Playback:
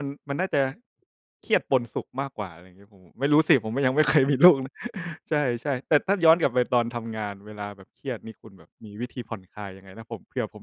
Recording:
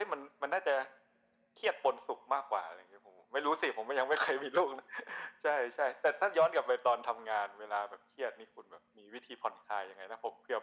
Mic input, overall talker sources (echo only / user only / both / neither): echo only